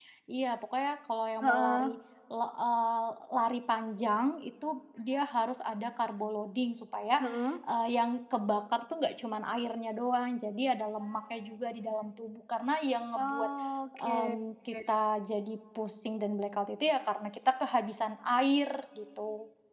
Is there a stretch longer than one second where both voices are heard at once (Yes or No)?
No